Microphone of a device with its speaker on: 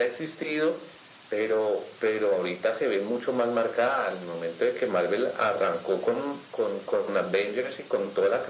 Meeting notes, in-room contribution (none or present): none